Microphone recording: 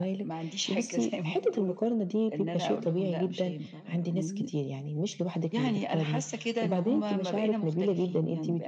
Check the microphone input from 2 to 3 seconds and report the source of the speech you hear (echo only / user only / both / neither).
echo only